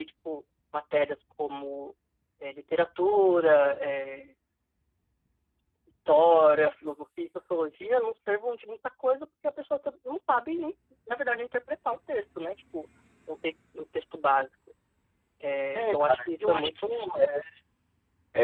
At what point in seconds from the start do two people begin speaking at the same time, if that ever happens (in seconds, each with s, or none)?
15.8 s